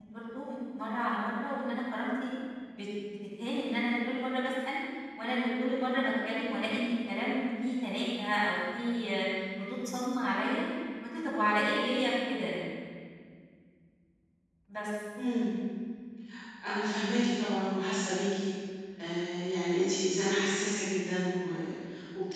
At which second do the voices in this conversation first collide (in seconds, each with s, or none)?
none